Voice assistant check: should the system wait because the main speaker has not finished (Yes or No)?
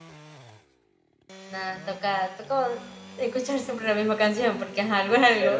No